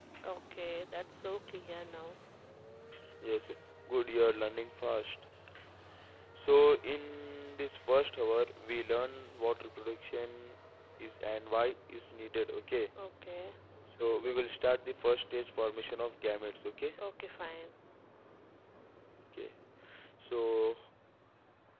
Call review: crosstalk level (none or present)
none